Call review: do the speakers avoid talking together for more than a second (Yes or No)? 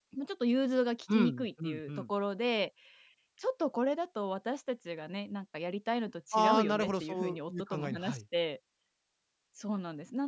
No